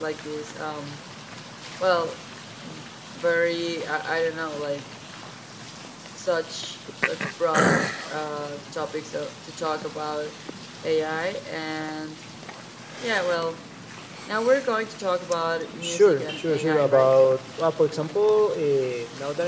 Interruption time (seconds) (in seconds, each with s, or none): 15.7 s